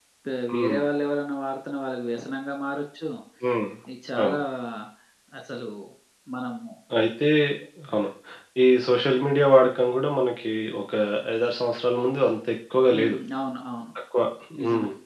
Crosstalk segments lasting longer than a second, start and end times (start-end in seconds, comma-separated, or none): none